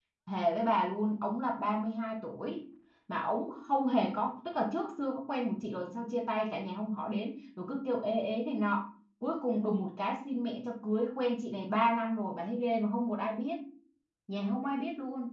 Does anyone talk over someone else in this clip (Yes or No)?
No